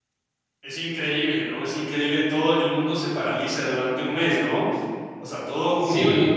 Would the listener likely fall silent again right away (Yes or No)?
No